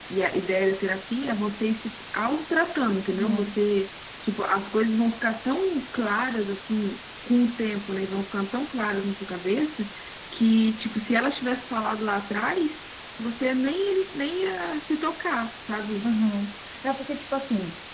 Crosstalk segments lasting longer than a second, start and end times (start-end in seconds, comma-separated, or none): none